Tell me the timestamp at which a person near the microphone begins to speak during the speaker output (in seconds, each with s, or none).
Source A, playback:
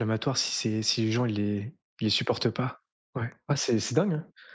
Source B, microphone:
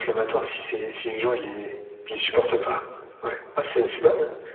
2.3 s